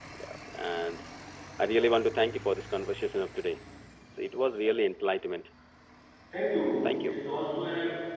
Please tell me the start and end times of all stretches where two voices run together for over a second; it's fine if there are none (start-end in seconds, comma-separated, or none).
none